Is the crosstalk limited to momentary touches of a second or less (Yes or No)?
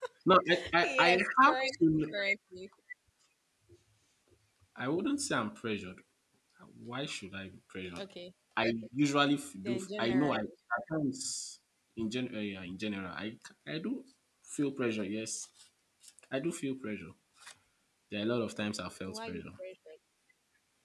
No